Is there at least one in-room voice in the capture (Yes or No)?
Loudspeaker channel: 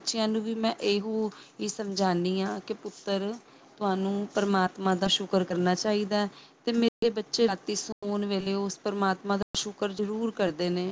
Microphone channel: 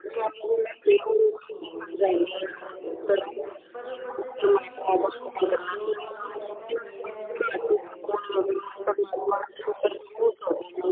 Yes